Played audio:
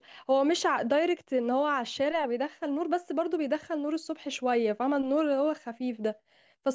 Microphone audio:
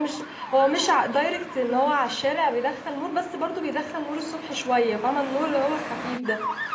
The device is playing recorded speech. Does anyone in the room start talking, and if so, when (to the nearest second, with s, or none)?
none